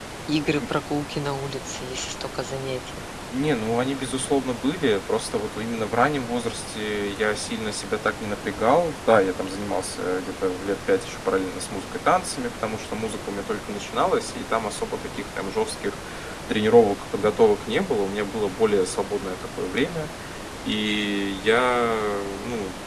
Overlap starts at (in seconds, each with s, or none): none